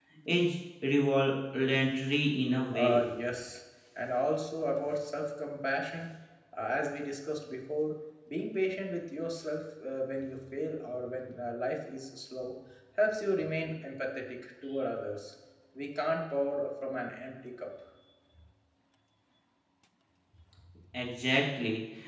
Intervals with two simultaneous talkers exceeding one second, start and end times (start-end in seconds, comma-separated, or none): none